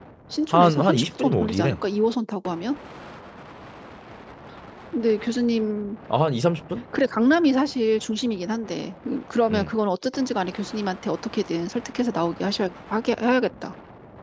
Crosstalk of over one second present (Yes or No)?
Yes